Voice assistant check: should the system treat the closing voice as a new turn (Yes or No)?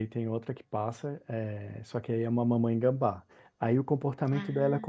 No